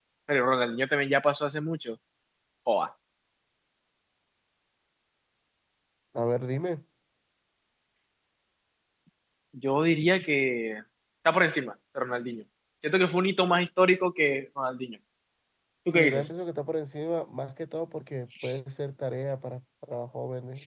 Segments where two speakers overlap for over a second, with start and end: none

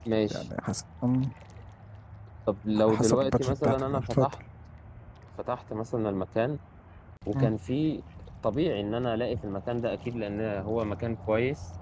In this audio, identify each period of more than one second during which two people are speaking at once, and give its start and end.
2.9-4.3

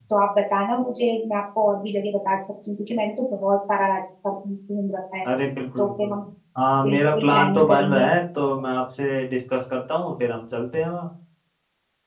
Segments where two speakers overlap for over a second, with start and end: 6.8-8.1

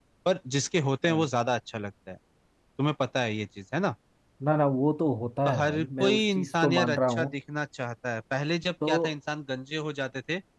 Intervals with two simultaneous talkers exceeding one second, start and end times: 5.4-7.3

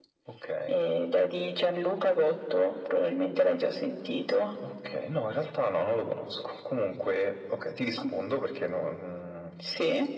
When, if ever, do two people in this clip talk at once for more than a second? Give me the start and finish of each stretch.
none

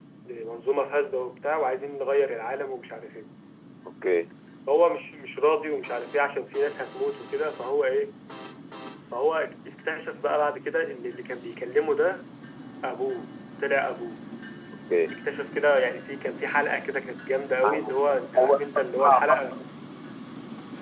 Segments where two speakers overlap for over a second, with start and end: 18.4-19.6

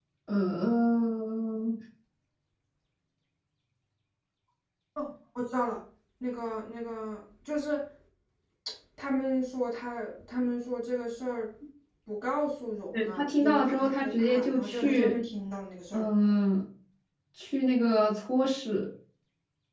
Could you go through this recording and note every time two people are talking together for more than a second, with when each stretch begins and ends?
13.0-15.1

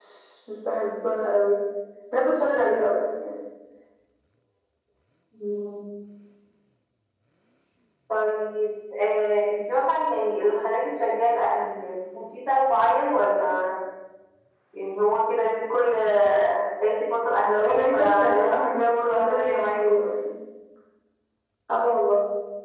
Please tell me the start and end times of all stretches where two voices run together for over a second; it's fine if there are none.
17.6-20.0

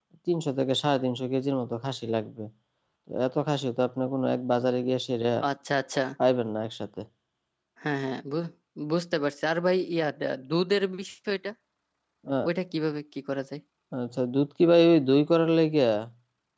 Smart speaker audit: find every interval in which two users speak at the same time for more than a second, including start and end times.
none

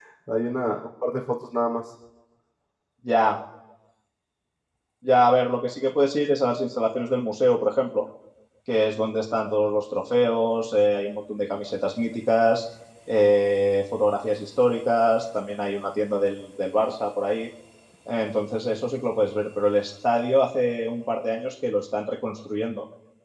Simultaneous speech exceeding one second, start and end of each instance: none

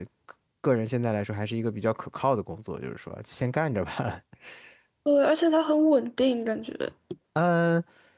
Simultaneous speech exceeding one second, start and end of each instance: none

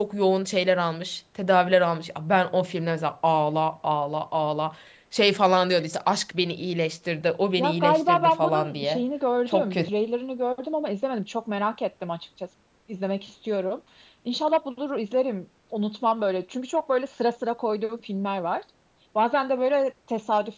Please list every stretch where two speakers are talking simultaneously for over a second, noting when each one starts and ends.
7.6-9.0

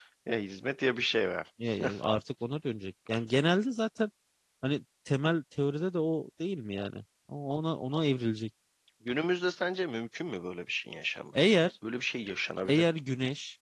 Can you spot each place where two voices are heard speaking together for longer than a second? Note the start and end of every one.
none

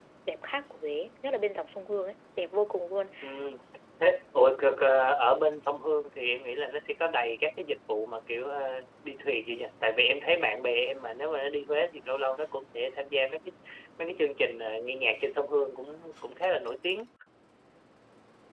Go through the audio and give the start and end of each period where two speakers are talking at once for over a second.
none

